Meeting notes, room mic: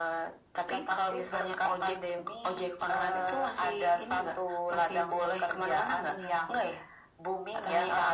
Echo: present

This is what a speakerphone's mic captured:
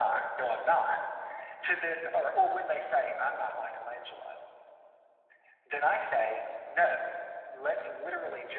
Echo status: present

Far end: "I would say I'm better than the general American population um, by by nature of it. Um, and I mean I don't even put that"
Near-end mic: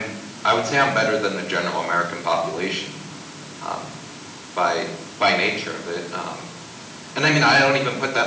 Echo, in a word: present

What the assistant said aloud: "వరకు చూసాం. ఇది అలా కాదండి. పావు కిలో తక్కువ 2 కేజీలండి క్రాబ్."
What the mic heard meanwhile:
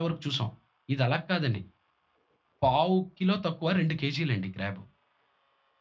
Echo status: present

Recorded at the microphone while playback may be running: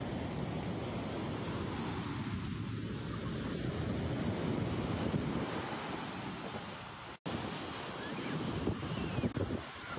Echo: none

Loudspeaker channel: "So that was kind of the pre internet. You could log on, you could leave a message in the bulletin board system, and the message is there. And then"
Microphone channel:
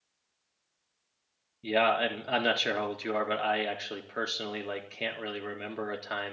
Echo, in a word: none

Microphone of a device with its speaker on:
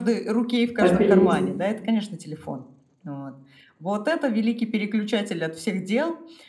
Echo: present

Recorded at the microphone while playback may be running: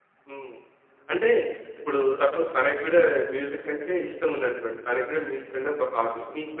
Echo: none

